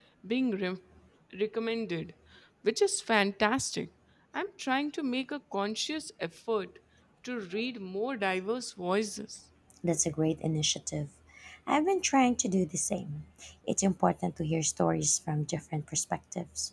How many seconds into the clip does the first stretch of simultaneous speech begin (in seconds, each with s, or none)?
none